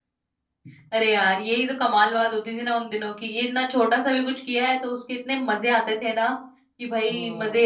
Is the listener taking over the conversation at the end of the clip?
No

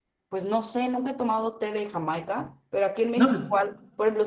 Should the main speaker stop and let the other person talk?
No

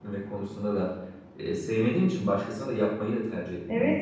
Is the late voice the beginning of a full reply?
Yes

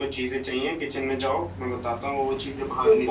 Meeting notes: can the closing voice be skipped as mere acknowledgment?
No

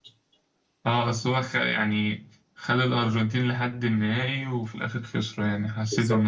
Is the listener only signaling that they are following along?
No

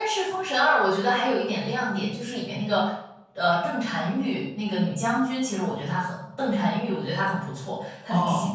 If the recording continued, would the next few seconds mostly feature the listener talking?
Yes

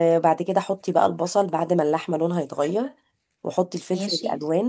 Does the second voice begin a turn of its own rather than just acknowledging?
No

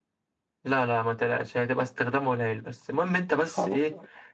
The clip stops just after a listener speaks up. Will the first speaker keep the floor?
Yes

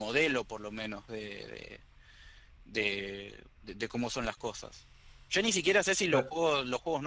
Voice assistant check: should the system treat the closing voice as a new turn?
No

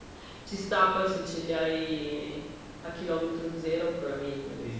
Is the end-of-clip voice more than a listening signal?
Yes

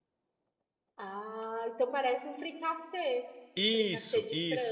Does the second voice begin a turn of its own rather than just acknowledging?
Yes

